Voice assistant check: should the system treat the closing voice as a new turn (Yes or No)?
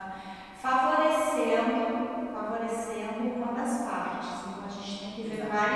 No